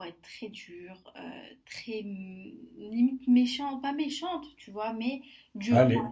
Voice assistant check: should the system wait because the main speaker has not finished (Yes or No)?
Yes